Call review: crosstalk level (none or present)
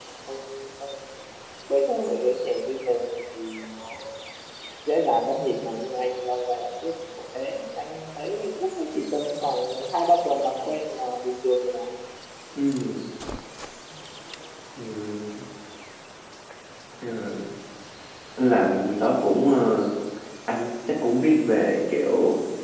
none